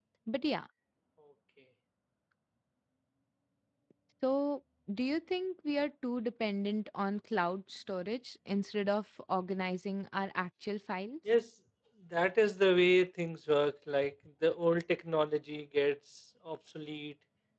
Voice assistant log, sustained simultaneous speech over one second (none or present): none